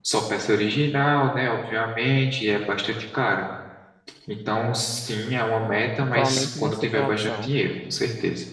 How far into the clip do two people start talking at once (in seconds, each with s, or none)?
6.1 s